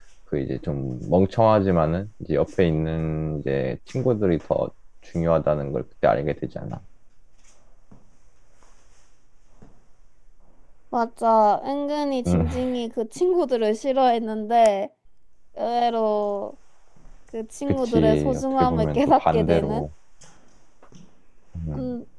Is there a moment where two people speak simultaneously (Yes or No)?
Yes